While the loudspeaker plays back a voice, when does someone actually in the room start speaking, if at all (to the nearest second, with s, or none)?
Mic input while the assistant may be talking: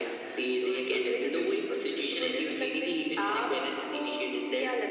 none